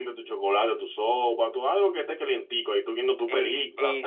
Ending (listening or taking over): taking over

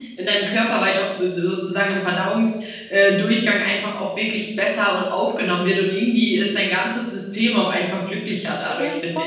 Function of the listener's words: taking over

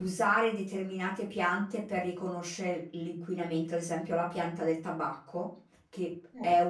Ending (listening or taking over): listening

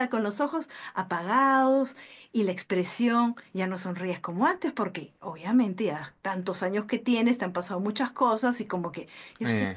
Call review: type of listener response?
listening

